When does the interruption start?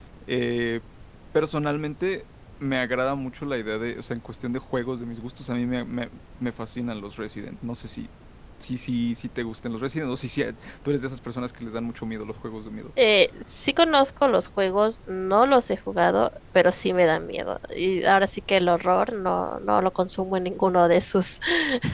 none

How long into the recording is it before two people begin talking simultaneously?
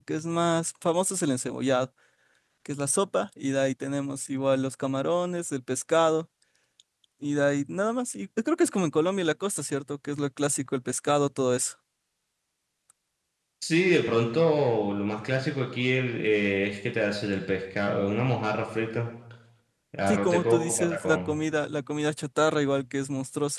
20.1 s

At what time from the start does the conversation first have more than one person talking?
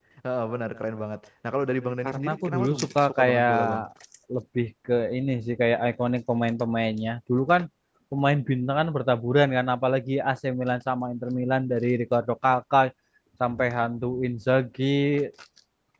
2.0 s

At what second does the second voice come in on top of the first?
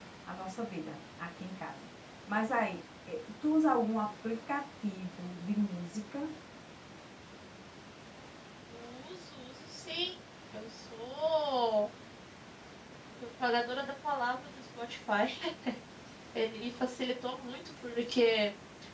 none

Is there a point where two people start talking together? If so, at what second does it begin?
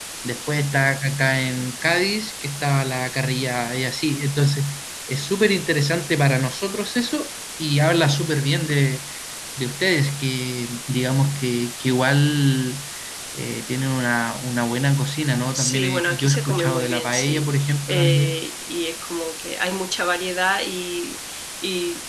15.5 s

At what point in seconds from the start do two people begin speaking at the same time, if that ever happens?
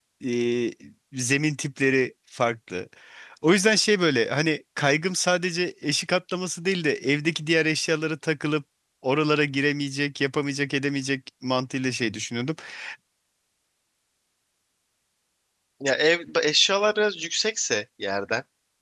none

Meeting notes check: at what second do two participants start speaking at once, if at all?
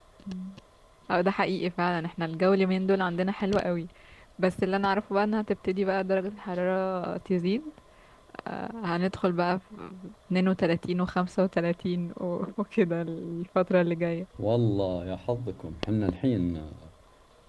none

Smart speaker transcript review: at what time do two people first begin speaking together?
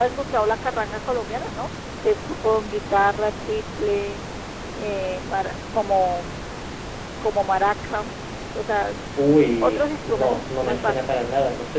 9.6 s

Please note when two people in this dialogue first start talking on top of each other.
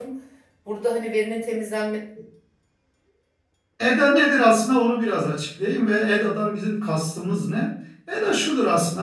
none

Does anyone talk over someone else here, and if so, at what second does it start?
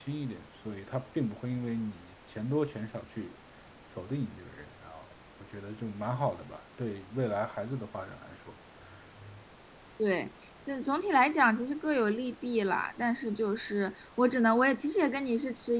none

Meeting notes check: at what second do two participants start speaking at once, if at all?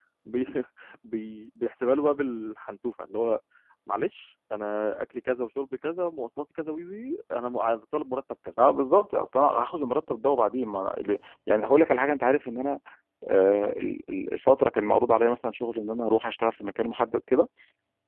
none

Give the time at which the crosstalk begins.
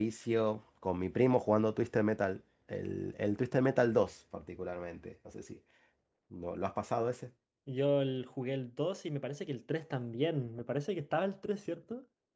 none

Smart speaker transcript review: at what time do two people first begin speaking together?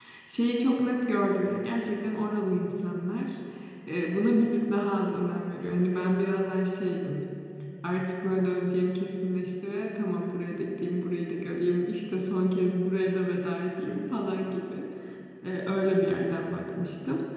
none

